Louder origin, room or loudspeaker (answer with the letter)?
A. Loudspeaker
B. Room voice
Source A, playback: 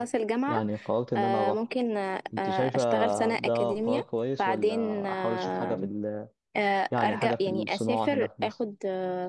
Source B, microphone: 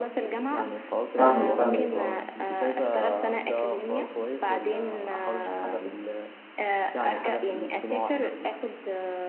B